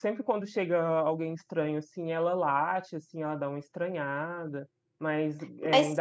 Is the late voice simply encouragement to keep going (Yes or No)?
Yes